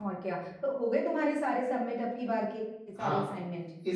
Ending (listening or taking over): taking over